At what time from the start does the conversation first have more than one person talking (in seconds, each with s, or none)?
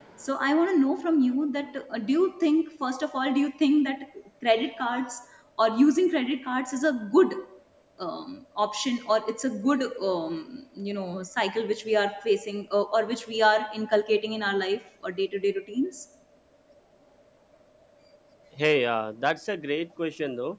none